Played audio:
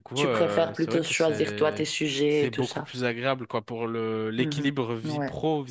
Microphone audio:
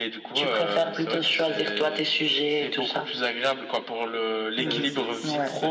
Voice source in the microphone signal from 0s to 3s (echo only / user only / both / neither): echo only